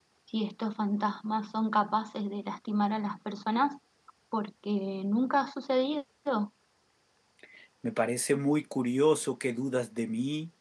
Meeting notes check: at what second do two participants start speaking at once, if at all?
none

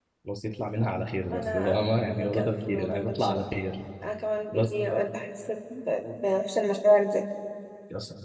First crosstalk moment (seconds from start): 1.3 s

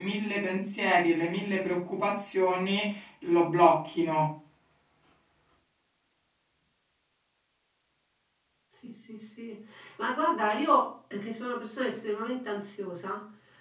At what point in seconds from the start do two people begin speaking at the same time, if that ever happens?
none

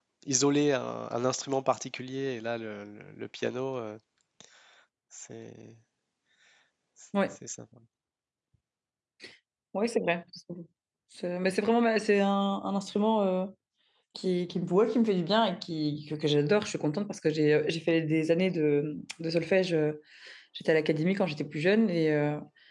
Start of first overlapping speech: none

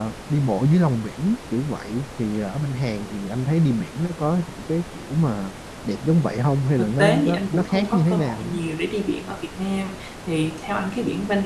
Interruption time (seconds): 6.8 s

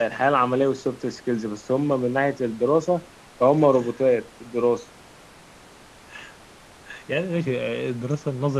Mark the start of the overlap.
none

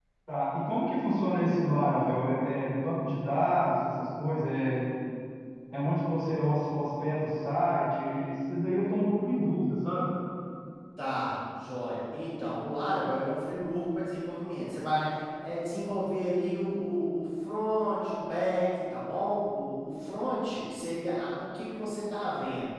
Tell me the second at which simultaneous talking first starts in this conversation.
none

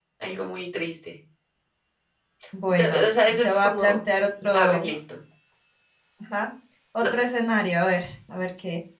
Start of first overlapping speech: 2.8 s

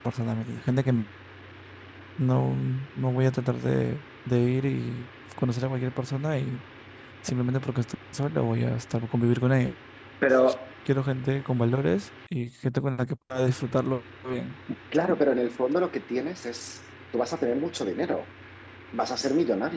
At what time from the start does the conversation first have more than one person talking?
none

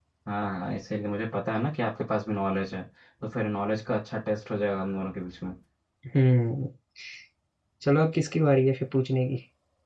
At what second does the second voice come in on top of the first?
none

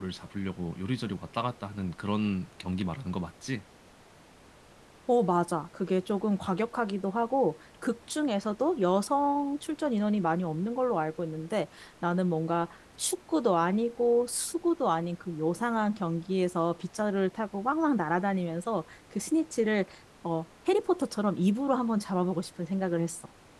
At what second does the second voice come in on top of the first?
none

